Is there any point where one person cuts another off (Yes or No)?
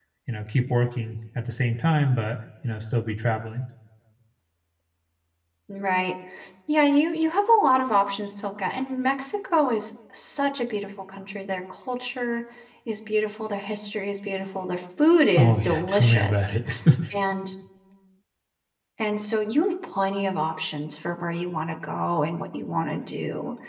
Yes